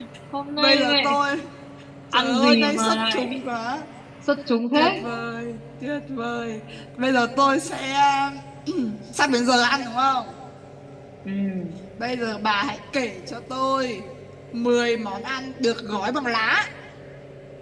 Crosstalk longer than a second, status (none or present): present